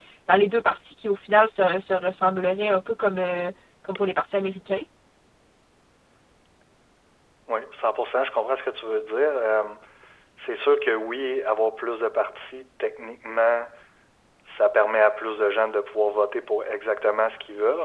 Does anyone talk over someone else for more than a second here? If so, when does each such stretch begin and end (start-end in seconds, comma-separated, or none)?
none